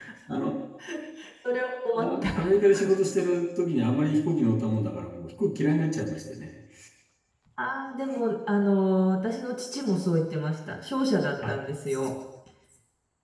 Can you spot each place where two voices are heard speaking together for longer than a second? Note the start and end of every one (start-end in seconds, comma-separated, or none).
none